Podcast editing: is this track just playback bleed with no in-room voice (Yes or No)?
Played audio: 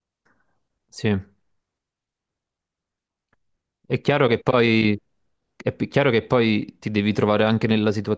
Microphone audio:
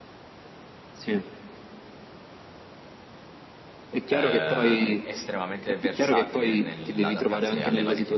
No